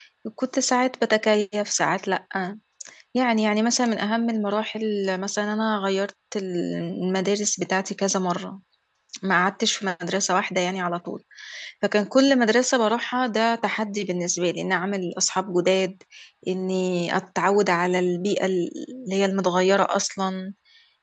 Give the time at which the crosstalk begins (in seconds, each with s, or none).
none